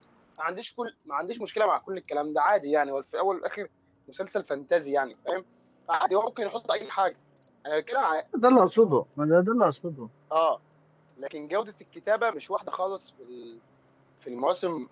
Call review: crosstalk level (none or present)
none